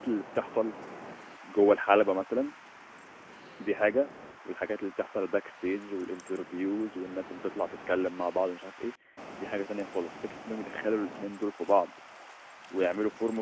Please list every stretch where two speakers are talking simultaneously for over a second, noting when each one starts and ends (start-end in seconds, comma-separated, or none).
none